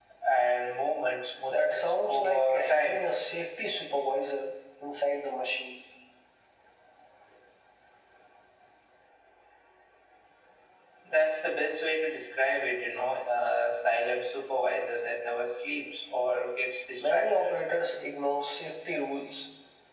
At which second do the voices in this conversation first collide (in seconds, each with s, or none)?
1.5 s